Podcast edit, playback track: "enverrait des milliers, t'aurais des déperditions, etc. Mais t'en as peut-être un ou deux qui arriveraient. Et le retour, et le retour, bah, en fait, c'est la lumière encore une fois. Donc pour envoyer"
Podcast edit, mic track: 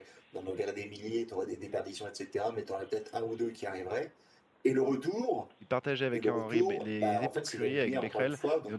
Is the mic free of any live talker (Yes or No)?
No